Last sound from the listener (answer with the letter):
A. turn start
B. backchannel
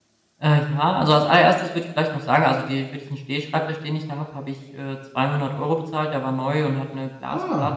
B